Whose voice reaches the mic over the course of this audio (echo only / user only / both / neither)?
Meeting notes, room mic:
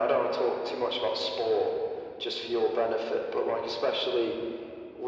echo only